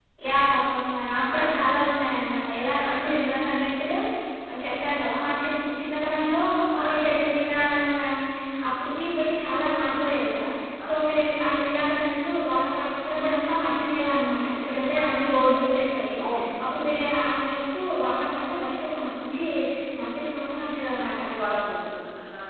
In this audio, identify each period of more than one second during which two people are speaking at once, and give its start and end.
none

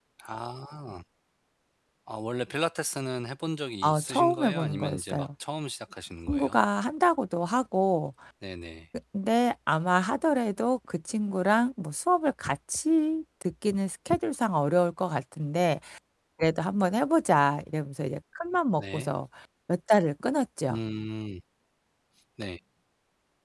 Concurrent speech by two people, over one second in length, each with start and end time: 3.8-5.3

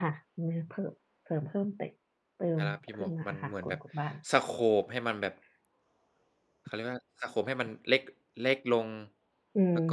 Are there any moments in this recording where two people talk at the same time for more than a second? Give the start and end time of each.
2.6-3.8

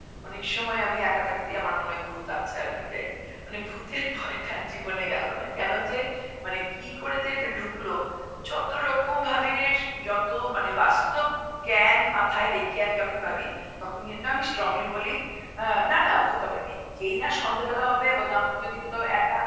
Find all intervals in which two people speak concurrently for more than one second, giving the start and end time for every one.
none

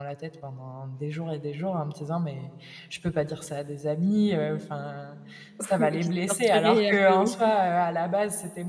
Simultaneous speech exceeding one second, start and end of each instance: 5.8-7.3

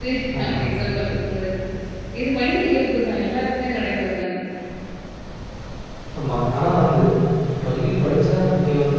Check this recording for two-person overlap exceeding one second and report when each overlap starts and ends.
none

